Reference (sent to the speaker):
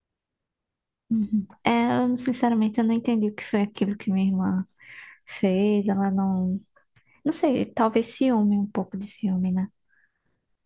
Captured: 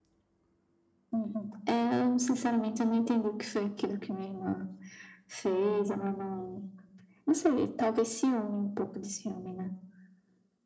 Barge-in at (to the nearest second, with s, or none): none